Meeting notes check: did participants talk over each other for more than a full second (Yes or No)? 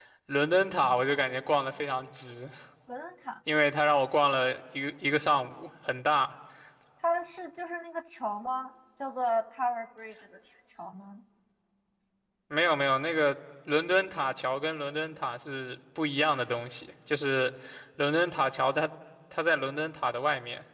No